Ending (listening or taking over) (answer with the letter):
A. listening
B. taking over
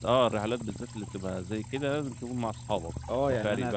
B